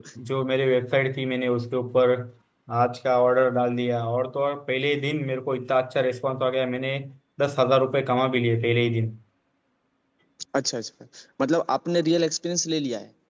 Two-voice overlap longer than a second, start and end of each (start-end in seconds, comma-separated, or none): none